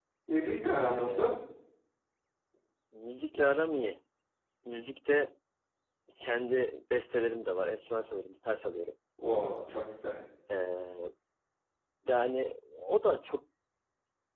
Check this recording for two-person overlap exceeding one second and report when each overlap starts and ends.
none

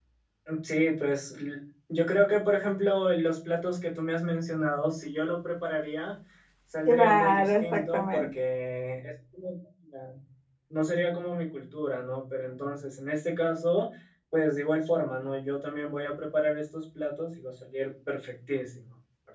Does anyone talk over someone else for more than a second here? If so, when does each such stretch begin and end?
6.9-8.3

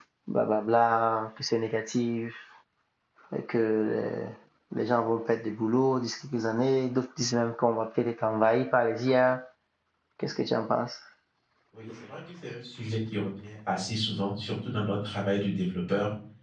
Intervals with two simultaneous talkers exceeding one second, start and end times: none

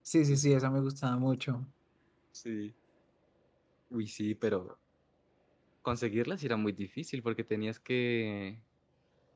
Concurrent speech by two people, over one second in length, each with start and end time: none

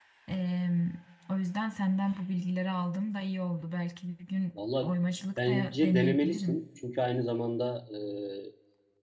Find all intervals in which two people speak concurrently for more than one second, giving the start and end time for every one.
5.4-6.6

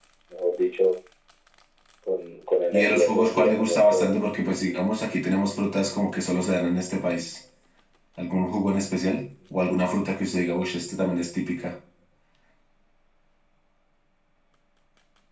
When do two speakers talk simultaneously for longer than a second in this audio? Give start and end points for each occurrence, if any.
2.7-4.1

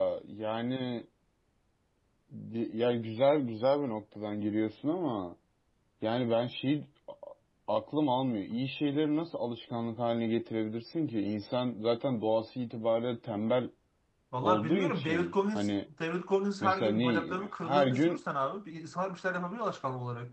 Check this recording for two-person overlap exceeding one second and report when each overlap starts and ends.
14.4-15.7, 16.6-18.2

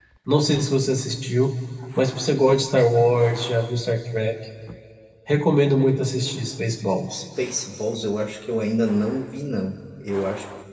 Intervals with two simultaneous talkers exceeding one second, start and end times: none

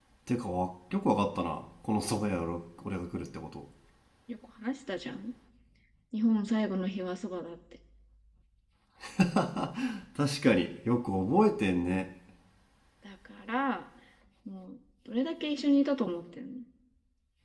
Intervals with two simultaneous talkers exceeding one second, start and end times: none

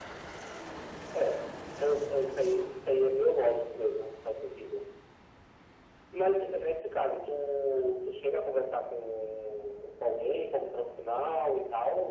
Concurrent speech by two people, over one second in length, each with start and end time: none

